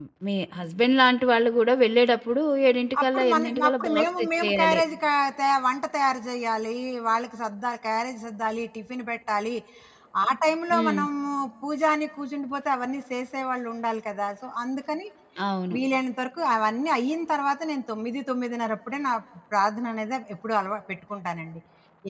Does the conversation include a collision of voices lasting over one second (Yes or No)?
Yes